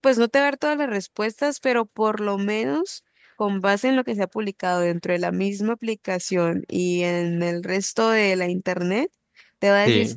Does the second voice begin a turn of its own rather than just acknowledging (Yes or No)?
No